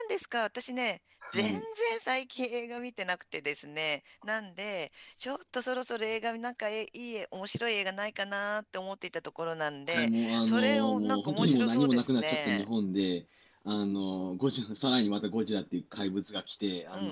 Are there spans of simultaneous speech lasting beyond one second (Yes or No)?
Yes